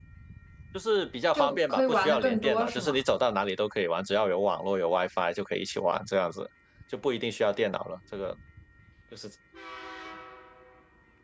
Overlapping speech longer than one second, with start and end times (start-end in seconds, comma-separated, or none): 1.3-3.0